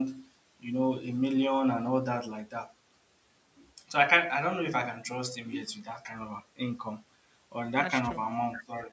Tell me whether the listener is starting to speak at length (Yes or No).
No